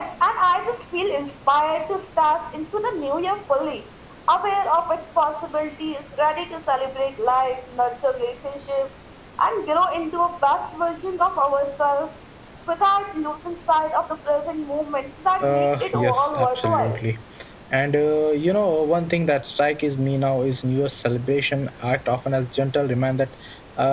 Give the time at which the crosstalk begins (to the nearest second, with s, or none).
15 s